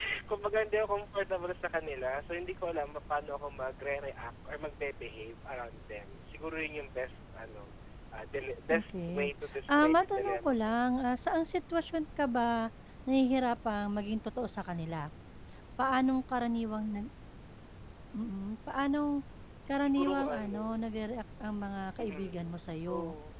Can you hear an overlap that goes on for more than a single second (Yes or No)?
Yes